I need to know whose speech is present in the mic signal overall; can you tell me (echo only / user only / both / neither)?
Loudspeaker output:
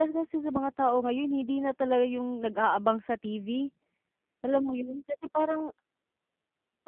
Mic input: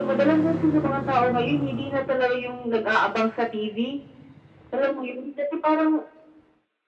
echo only